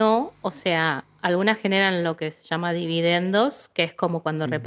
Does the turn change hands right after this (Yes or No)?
No